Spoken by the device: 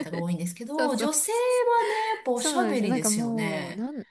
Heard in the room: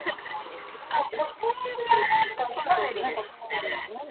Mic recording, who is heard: echo only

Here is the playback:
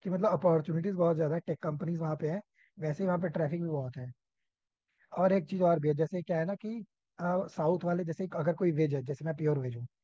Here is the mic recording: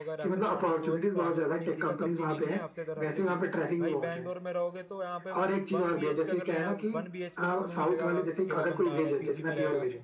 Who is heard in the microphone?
both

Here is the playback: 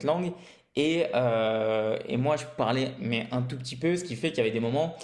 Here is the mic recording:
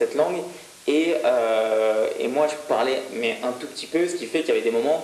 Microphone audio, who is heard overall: echo only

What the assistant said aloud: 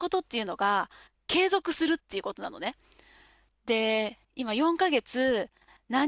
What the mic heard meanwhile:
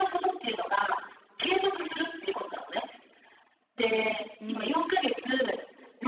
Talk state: both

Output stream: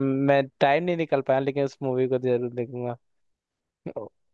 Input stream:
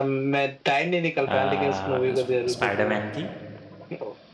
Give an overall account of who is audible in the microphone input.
both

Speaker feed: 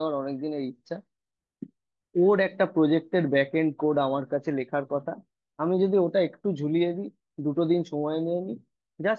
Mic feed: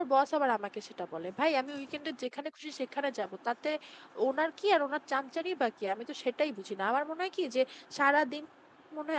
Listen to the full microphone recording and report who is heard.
user only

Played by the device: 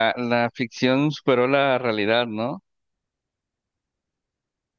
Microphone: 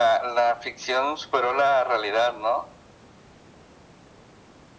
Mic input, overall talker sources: echo only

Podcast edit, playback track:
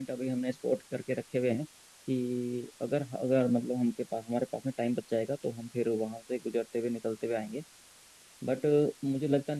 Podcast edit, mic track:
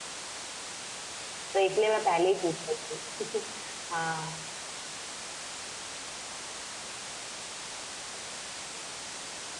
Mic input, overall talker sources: user only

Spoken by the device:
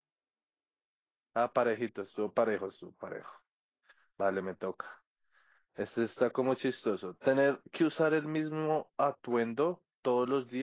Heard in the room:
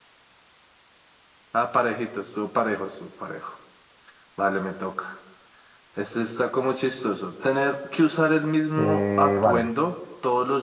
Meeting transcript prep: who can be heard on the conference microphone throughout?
both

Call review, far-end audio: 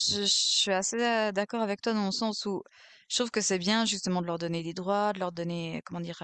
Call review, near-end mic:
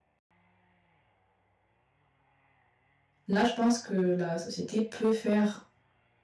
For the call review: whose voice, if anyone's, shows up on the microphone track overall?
user only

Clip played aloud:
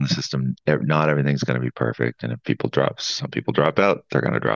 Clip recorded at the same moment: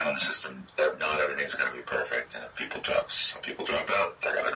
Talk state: echo only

